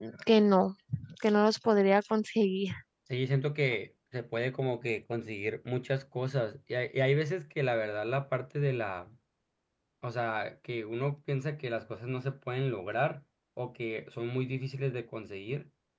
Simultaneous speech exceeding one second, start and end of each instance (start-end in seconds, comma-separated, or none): none